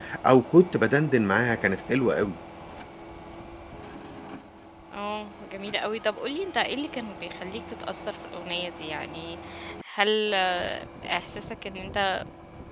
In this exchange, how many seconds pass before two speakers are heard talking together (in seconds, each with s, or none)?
none